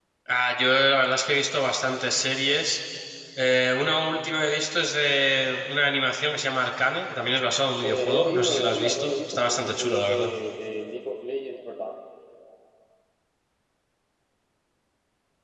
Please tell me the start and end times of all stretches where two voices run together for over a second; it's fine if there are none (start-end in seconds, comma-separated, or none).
7.8-10.3